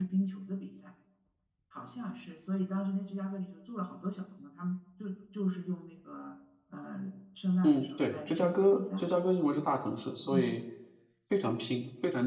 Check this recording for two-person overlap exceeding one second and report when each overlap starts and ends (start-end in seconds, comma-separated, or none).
7.6-9.0